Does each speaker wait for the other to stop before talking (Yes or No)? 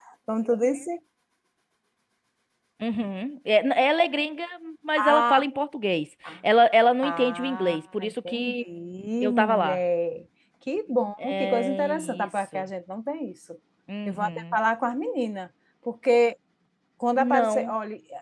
No